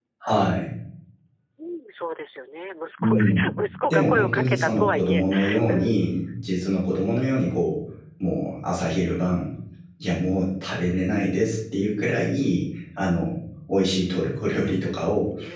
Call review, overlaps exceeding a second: present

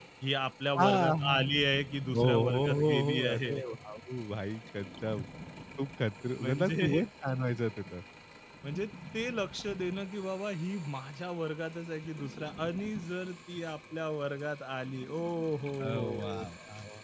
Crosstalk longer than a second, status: present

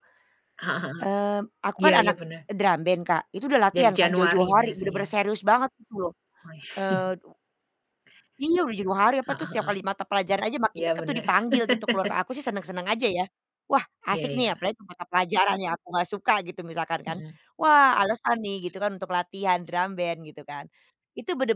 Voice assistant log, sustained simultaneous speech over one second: present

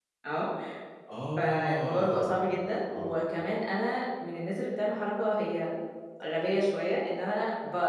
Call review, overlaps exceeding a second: present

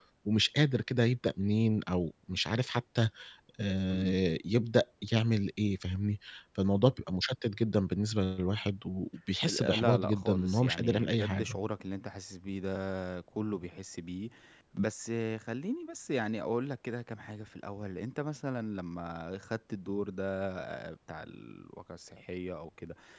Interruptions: present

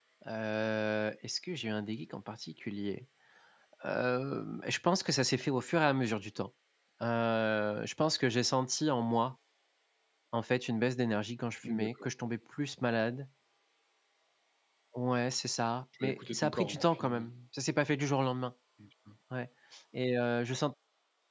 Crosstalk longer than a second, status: present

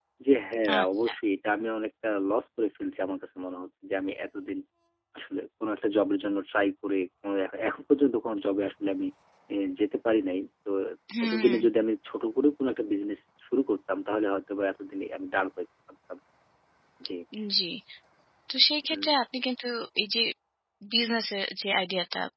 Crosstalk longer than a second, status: none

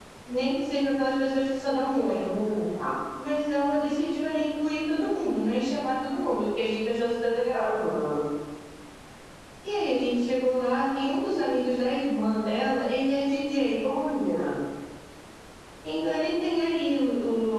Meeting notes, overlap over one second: none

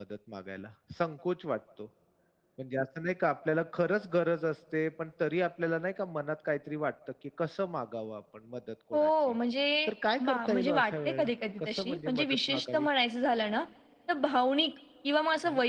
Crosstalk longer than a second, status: present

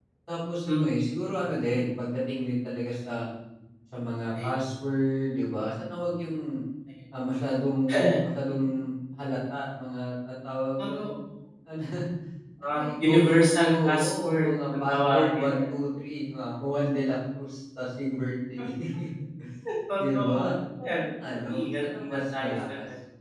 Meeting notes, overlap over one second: present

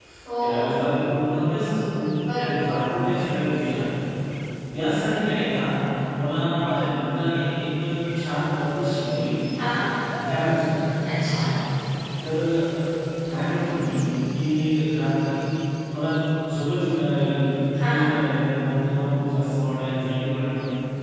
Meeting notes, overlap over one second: none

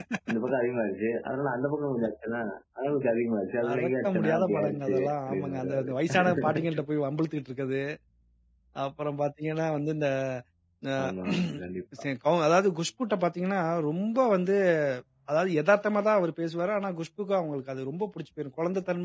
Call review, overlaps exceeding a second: present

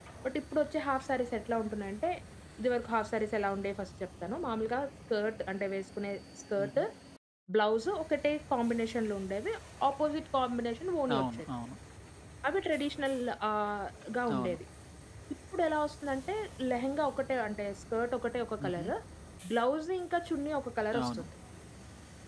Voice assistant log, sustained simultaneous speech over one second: none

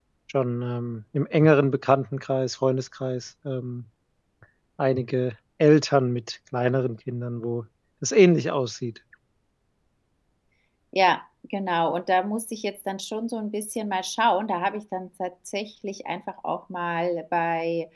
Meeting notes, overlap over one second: none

